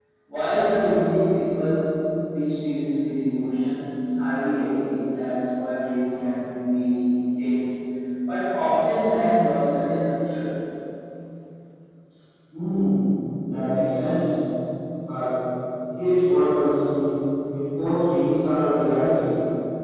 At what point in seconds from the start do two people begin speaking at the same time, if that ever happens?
none

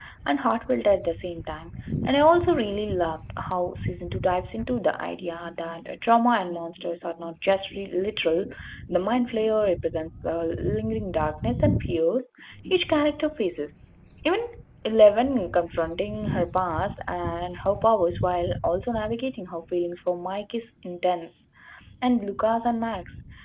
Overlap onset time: none

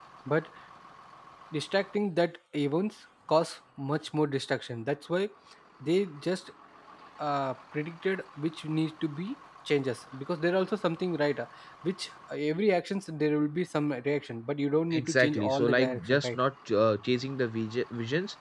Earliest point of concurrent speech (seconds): 14.9 s

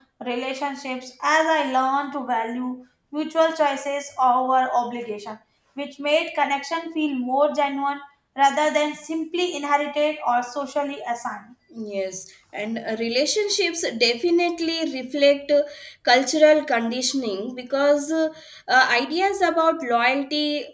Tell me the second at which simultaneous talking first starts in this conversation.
none

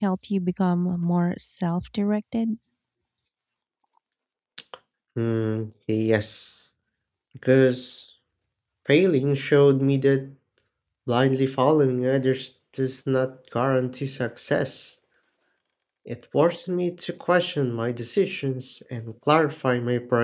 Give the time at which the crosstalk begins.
none

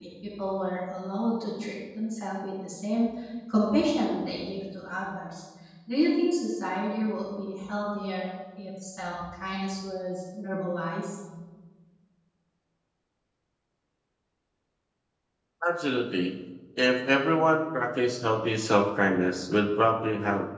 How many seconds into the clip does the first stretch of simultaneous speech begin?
none

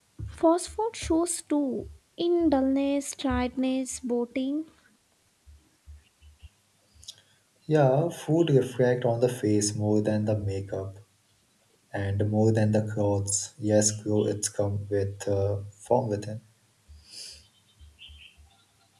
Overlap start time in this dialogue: none

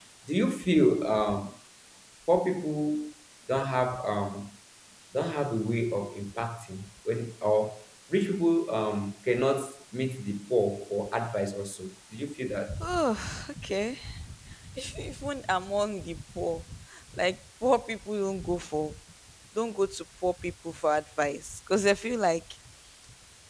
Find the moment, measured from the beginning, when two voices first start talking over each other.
none

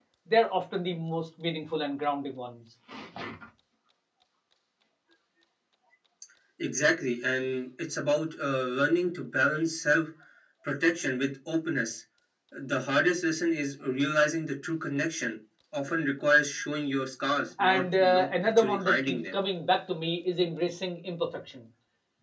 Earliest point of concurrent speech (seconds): 17.6 s

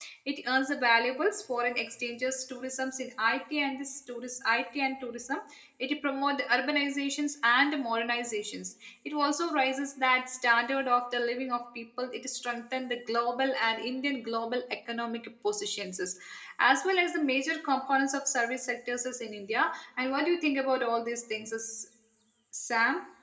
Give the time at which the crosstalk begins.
none

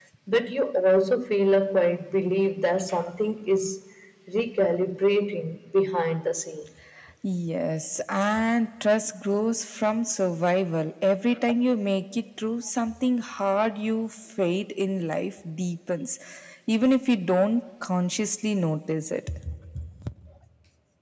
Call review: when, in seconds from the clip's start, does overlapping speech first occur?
none

